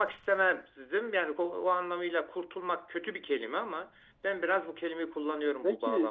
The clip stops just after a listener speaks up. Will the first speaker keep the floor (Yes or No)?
No